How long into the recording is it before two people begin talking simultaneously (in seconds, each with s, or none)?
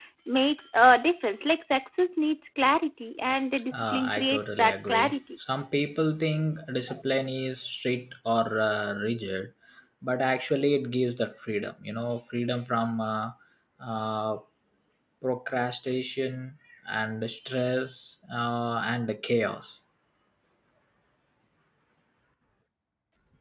3.7 s